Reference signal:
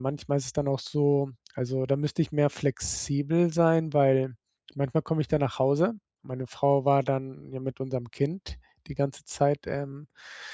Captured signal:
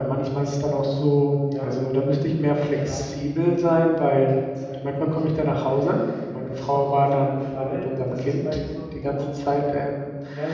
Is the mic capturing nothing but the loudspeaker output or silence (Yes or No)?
No